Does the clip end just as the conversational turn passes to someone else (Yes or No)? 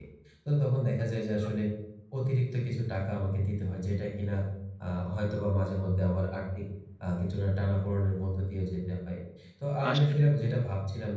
No